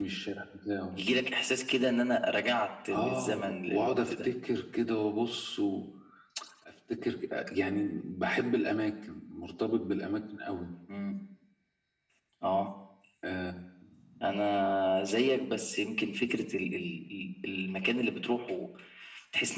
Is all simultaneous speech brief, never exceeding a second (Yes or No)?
No